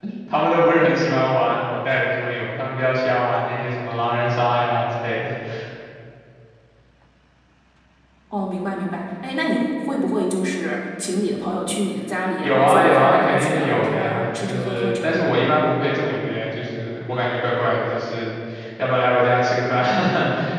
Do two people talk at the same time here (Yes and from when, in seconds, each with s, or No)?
Yes, from 12.4 s